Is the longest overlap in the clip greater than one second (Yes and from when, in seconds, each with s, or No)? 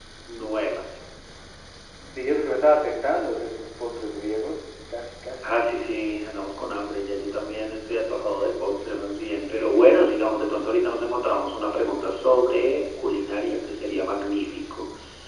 No